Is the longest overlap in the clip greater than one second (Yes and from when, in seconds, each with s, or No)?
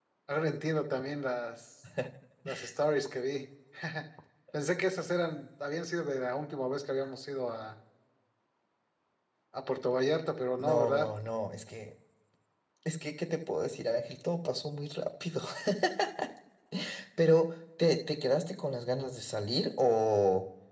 No